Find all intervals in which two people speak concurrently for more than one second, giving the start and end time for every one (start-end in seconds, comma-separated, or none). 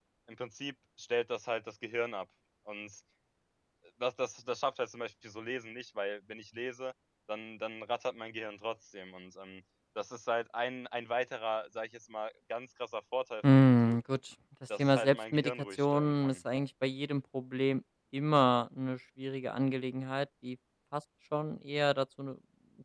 14.8-16.4